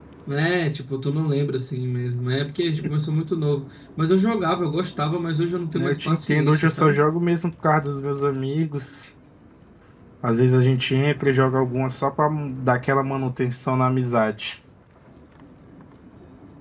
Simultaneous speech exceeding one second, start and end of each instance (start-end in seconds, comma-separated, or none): 5.8-7.0